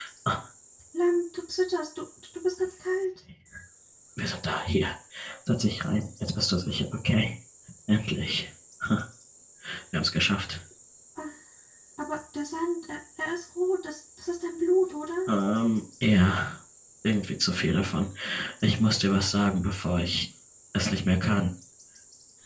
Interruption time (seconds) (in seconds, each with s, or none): none